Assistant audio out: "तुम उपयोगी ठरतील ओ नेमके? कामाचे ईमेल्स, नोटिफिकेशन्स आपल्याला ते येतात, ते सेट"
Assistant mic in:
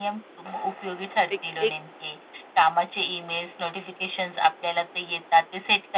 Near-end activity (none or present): present